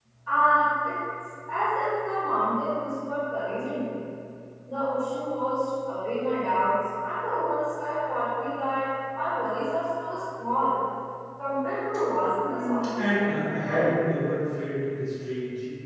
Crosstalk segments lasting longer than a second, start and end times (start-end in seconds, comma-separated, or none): 12.5-13.9